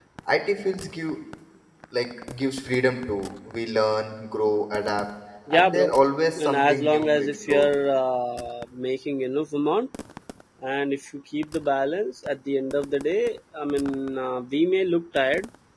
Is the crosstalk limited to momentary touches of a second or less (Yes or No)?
No